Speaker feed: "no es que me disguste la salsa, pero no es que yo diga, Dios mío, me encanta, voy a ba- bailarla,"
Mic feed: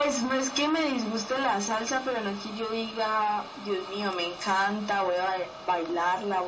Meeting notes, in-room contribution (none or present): none